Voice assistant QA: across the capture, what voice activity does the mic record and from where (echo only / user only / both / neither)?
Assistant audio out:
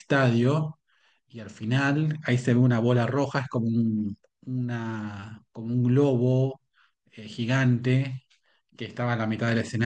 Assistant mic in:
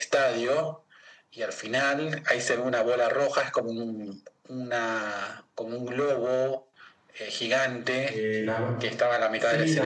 both